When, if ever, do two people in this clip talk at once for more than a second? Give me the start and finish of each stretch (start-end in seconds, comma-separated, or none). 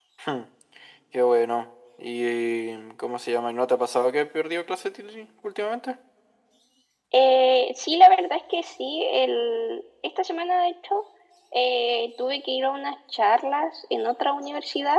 none